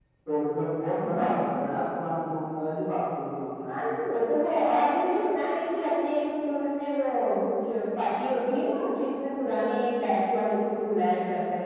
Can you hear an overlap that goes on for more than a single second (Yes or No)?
No